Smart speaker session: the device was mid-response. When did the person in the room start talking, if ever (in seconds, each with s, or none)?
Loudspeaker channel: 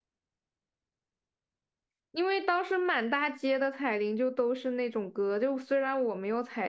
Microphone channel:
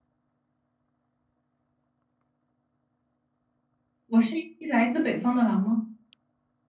4.1 s